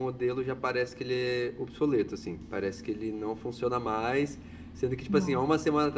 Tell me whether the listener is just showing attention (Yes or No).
Yes